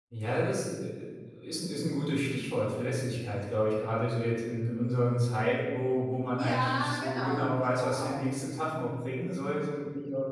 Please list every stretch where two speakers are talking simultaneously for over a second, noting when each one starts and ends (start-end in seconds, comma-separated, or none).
6.3-8.2